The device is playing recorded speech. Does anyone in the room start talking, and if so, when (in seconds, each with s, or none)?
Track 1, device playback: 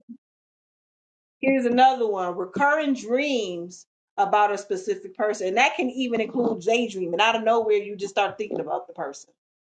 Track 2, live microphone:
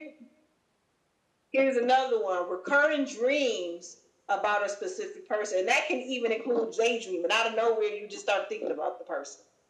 none